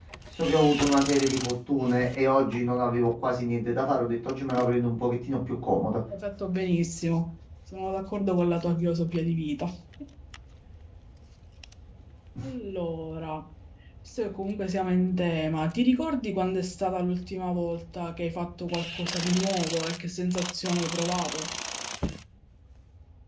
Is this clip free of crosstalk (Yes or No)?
Yes